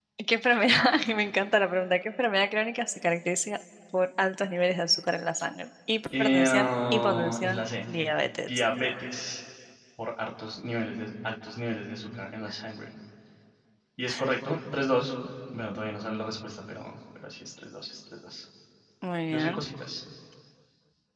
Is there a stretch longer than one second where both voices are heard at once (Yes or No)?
Yes